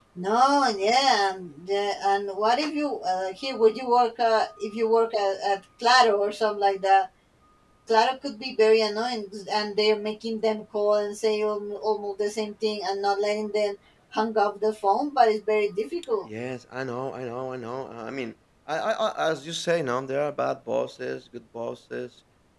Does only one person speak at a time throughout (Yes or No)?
Yes